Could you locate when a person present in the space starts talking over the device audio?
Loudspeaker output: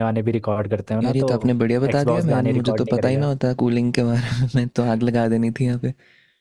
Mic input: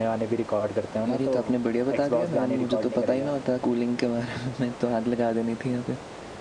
none

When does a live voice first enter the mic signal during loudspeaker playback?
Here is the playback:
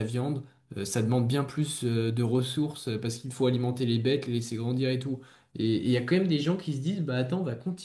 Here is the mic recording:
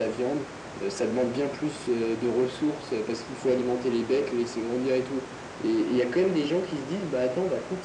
none

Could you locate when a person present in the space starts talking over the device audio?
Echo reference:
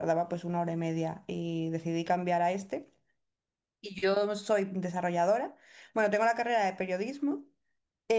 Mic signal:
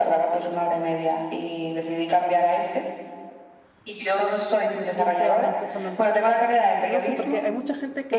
4.9 s

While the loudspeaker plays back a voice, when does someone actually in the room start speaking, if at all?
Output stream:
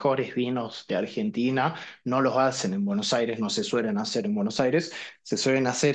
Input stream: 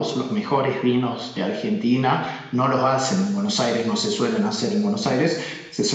none

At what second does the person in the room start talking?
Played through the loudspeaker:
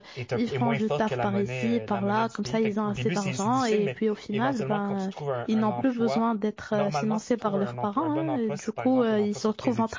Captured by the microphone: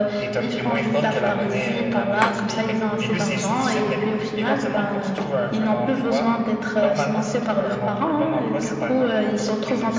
none

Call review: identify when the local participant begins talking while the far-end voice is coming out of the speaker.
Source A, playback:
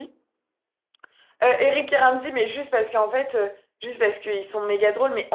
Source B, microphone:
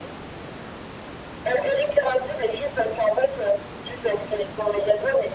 none

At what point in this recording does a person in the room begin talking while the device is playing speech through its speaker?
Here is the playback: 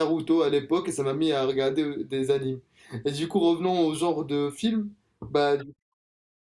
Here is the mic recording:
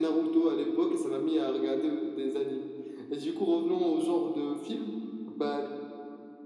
none

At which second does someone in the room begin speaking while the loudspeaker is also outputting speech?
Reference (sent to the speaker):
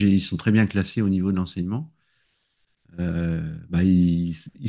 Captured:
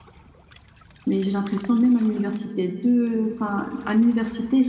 1.1 s

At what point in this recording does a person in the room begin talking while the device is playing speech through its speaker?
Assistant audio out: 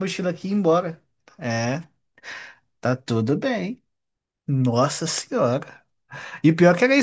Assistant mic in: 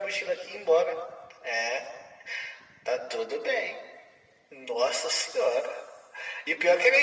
none

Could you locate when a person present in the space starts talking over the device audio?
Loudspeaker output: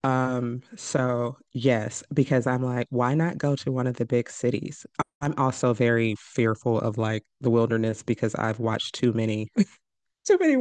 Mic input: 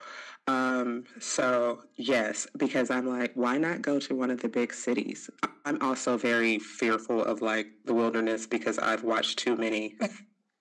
none

